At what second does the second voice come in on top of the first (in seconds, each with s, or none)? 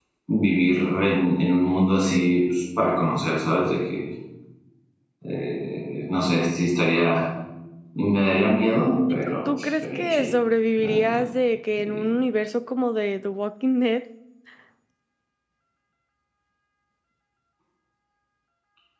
9.1 s